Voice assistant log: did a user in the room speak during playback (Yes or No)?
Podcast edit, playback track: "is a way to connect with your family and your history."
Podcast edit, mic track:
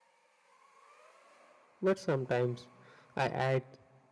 Yes